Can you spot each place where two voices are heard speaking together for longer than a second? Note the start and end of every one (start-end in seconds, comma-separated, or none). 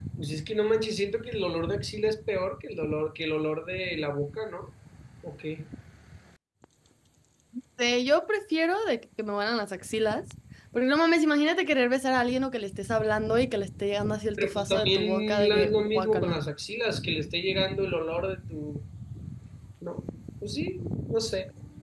14.4-16.4